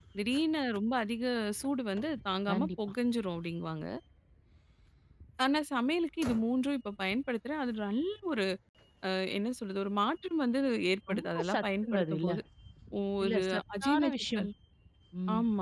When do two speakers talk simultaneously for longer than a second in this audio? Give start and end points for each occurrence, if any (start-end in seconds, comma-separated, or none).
11.1-12.3, 13.2-14.5